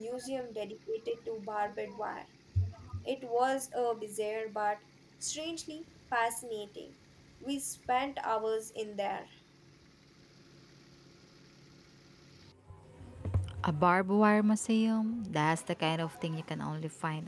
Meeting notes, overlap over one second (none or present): none